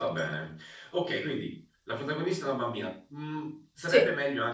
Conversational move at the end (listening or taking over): listening